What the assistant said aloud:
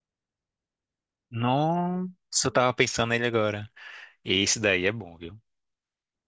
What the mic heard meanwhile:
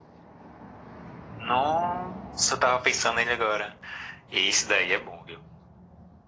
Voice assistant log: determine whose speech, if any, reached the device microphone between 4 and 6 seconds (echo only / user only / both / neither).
echo only